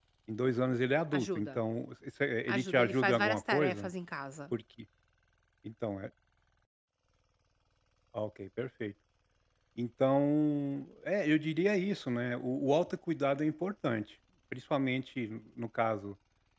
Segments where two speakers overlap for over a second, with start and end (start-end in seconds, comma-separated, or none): 2.5-3.9